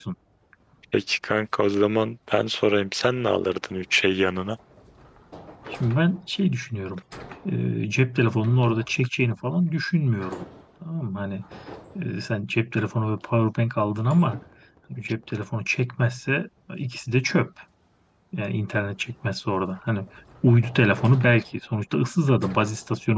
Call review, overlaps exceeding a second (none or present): none